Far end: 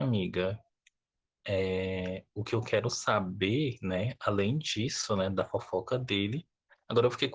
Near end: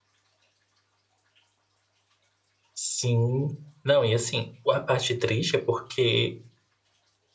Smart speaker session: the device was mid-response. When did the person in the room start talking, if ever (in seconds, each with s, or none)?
2.7 s